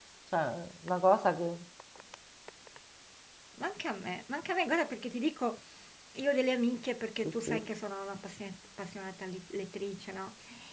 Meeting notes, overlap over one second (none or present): none